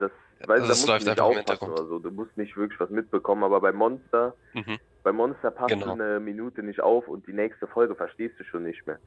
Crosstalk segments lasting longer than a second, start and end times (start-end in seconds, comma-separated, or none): 0.6-1.8